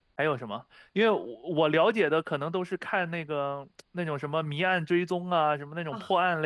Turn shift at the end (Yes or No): No